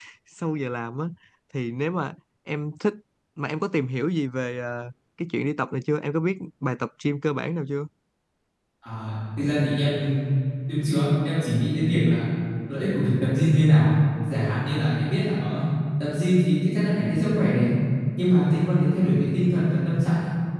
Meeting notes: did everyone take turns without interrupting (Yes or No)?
Yes